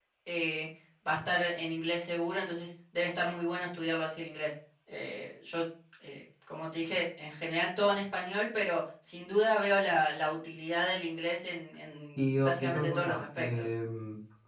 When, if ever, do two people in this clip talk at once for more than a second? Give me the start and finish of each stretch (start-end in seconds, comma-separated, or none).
12.4-13.6